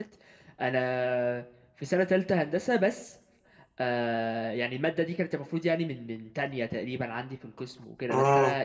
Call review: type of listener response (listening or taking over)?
listening